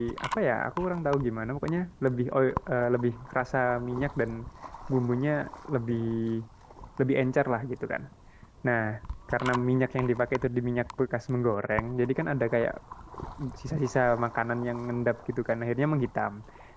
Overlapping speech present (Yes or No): No